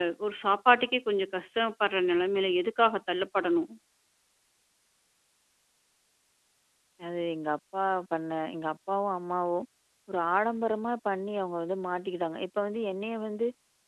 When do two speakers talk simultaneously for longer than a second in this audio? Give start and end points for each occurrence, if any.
none

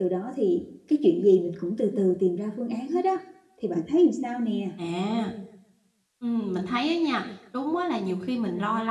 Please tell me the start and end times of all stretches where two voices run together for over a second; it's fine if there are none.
none

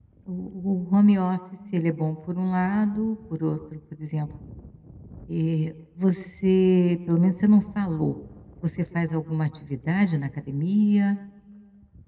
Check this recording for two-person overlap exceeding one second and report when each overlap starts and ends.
none

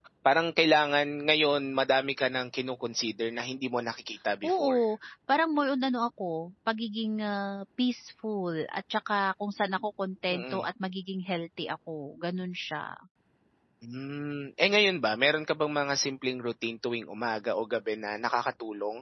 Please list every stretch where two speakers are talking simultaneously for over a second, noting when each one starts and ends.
none

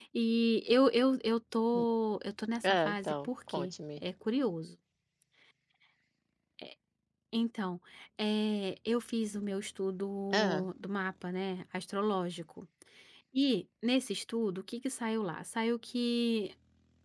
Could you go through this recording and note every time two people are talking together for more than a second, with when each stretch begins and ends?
2.6-4.0

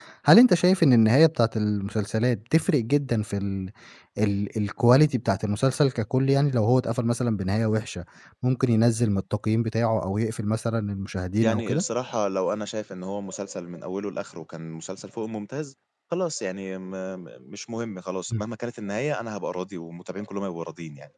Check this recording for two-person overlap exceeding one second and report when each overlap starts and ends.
none

